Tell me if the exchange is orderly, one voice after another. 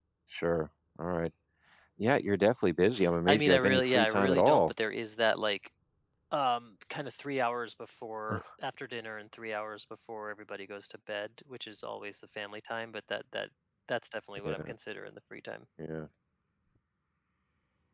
No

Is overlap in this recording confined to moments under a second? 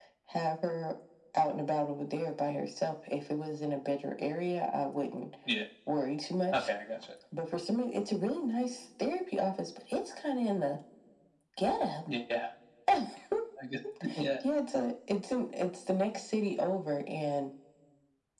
Yes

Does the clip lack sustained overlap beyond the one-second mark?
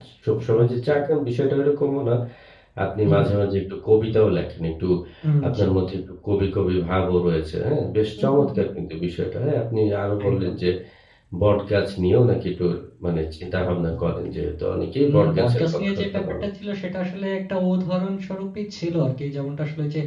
No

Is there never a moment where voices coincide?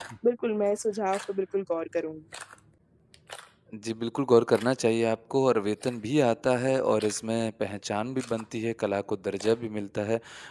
Yes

